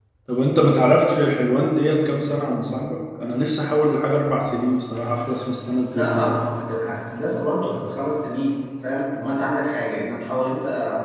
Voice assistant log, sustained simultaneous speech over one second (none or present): none